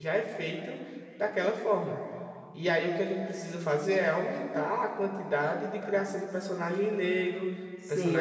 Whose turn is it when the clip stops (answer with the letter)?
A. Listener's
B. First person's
A